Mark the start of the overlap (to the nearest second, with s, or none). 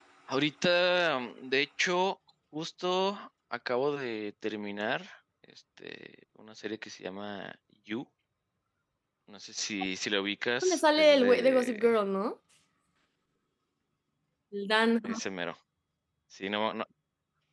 11 s